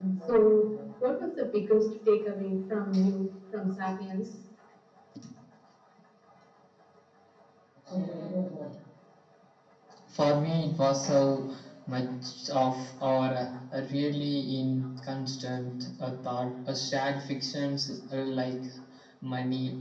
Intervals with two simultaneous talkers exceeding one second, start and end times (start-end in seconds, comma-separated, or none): none